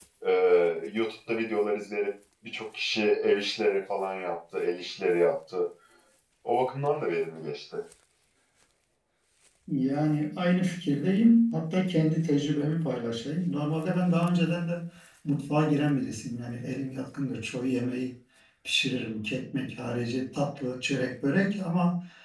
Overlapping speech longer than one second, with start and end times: none

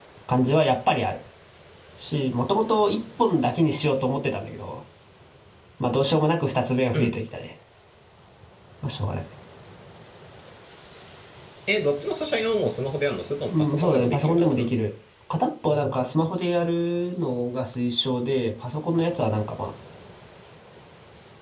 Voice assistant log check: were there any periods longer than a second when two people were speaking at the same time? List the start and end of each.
13.5-14.7

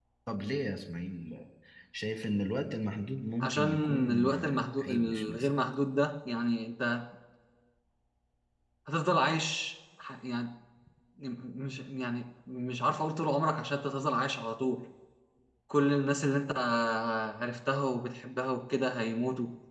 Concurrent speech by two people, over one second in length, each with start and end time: 3.4-5.5

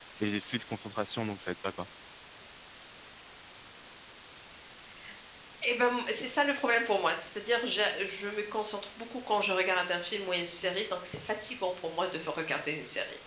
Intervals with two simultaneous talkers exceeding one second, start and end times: none

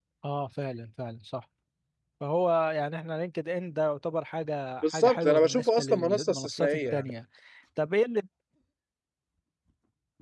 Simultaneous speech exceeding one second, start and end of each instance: 4.8-7.1

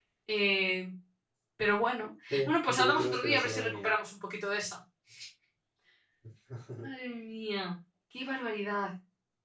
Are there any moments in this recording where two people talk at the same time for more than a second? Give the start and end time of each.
2.3-3.9

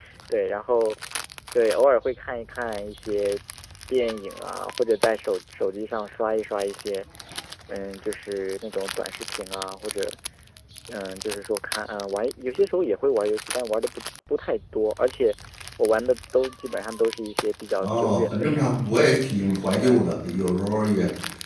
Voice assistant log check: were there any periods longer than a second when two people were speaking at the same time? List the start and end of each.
17.8-19.1

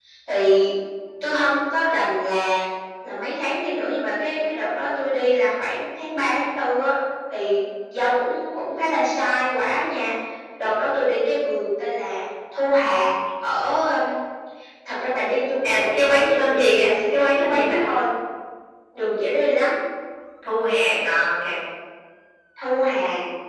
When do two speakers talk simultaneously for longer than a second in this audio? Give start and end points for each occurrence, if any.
15.6-17.8

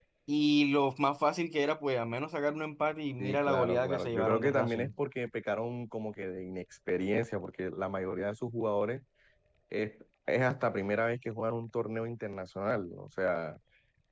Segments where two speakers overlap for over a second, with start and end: 3.2-4.9

